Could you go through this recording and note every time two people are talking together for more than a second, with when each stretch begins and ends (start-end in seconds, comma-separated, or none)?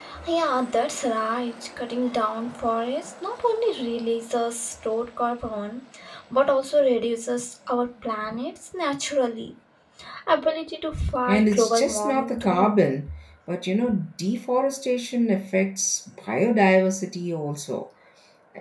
11.3-12.8